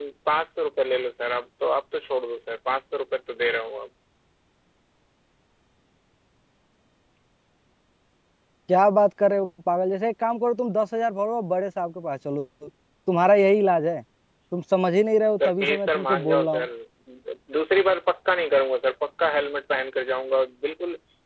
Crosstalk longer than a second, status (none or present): present